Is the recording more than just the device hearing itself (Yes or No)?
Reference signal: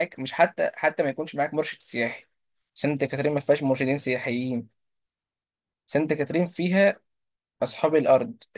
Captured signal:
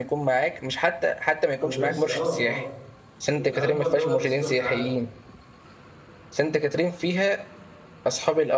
Yes